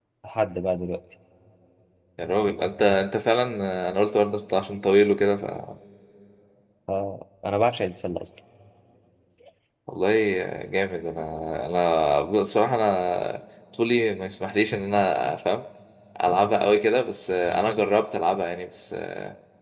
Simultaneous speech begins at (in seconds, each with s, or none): none